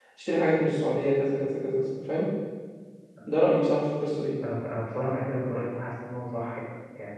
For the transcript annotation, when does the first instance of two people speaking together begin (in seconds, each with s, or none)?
none